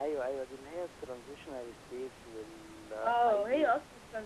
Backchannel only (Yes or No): No